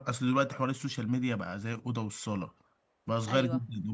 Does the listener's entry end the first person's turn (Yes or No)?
No